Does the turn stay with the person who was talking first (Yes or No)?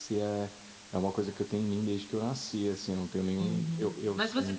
No